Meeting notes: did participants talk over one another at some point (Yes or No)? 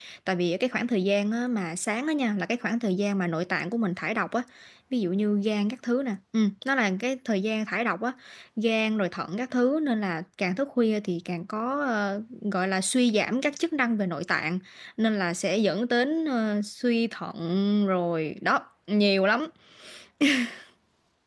No